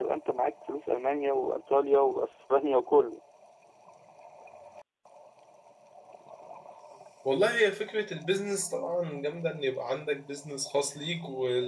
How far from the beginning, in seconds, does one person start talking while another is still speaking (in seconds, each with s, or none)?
none